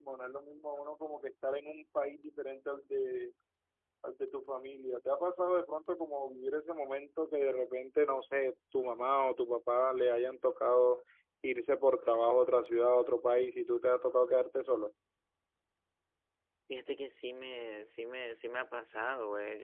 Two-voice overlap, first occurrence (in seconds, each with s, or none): none